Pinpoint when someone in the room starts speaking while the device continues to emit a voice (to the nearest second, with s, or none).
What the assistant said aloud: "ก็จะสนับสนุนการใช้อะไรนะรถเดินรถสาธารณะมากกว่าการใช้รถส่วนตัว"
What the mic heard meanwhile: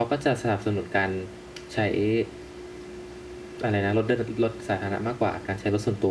none